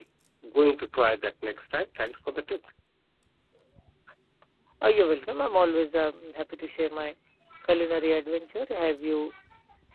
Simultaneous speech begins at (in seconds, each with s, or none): none